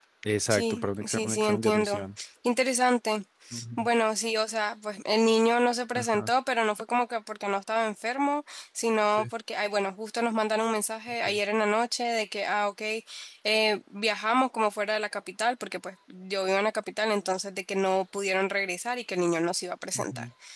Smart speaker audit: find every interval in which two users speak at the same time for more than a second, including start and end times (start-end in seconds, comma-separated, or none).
0.5-2.1